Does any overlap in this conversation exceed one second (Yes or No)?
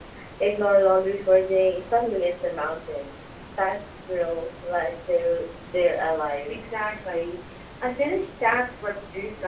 No